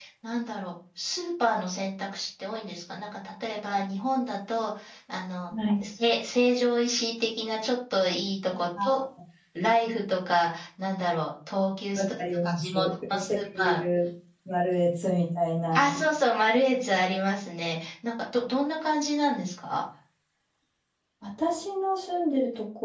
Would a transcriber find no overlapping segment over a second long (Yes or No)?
No